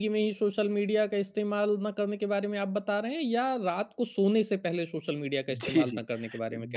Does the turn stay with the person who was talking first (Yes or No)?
No